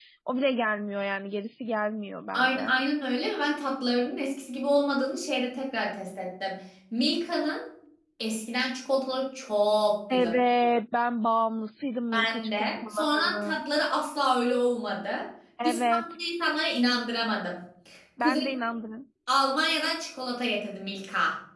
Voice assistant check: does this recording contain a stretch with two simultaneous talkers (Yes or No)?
Yes